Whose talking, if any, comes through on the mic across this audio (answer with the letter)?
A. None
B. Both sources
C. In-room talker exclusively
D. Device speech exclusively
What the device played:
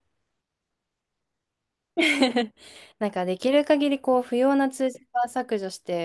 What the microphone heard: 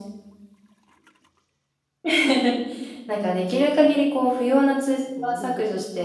B